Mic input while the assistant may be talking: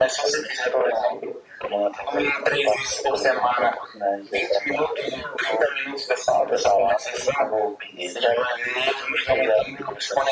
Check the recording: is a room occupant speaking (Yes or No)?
No